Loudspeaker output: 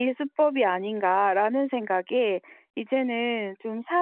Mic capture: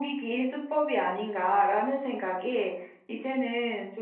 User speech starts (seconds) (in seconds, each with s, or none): none